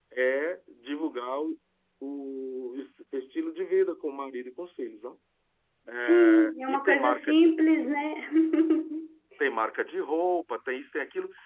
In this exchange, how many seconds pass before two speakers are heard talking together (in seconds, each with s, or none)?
6.1 s